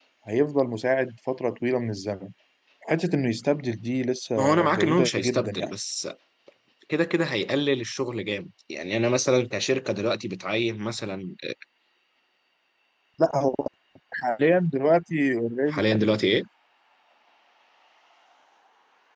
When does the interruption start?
4.4 s

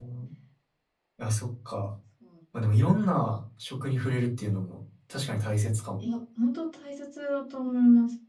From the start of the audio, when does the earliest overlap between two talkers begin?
none

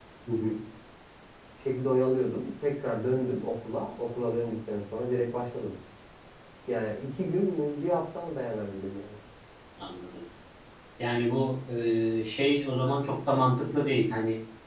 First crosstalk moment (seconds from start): none

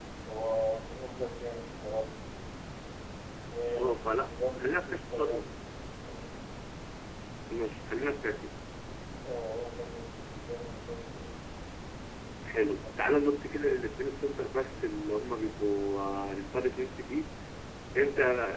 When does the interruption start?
3.8 s

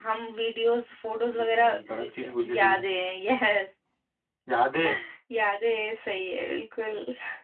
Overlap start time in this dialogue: 1.1 s

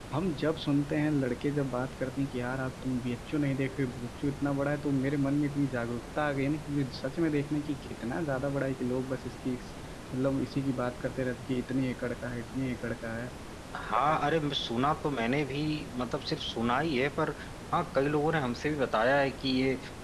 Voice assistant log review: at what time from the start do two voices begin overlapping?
none

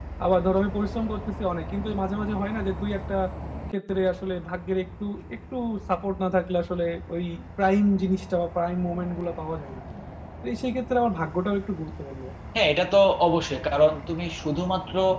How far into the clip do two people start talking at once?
none

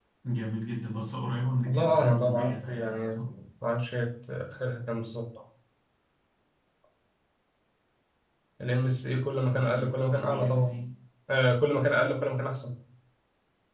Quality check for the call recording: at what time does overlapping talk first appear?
1.7 s

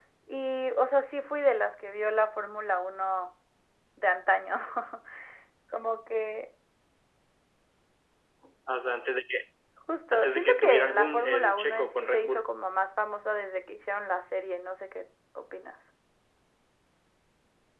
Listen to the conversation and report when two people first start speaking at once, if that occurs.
10.1 s

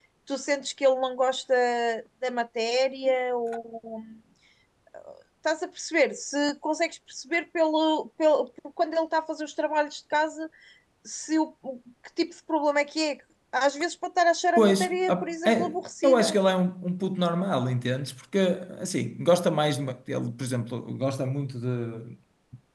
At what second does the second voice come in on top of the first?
14.6 s

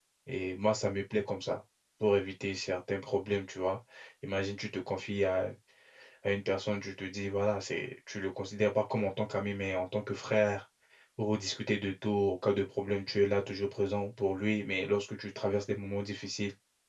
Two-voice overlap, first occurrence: none

